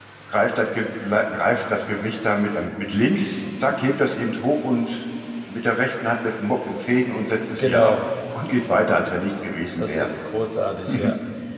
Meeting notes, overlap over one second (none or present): none